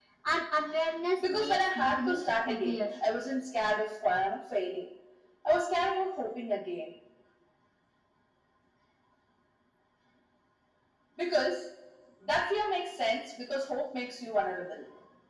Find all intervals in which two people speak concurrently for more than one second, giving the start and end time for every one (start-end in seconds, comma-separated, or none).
1.2-2.8